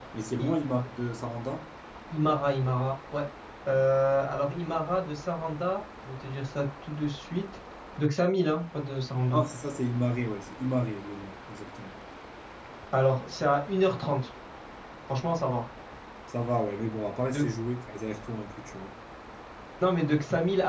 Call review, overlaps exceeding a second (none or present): none